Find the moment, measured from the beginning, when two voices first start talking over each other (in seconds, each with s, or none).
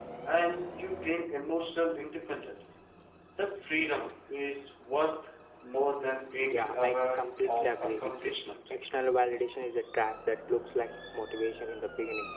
6.4 s